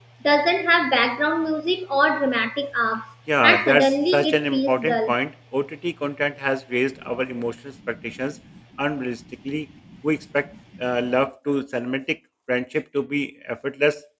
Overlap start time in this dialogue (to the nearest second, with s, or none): 3 s